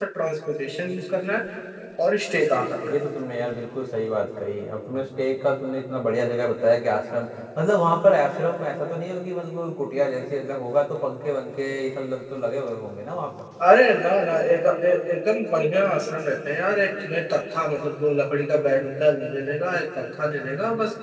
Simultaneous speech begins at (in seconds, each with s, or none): none